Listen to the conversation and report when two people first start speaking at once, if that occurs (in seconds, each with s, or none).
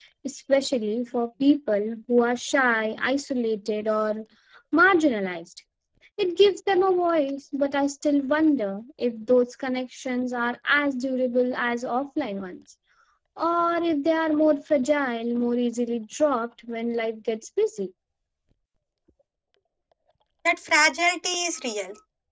none